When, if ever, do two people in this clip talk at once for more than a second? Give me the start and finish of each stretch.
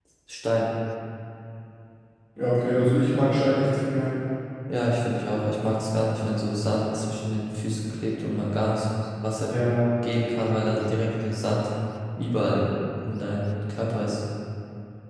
none

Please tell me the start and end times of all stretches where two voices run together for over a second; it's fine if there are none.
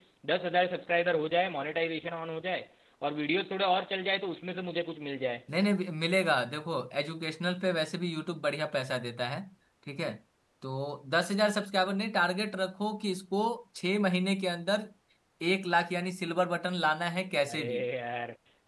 none

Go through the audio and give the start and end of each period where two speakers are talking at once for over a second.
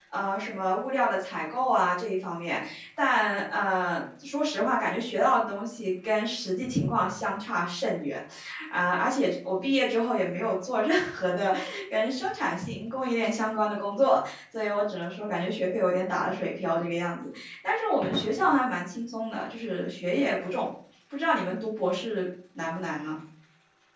none

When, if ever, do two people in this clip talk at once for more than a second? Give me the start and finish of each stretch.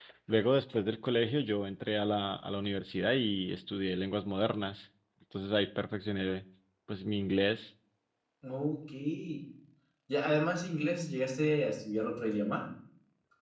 none

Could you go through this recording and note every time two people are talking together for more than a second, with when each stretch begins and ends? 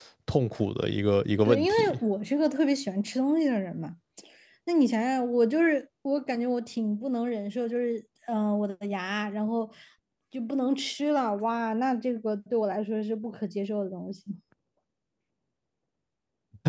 none

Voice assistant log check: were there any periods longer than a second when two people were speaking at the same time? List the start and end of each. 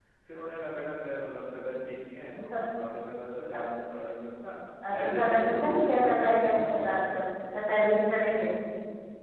4.9-7.2

